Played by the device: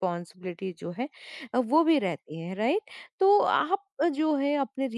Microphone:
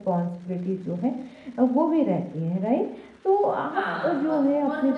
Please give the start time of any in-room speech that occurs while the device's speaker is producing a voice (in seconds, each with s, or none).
3.7 s